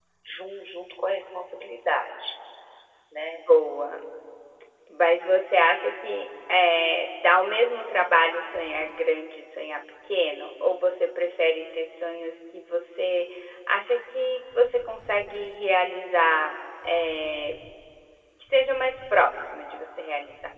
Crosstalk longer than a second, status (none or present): none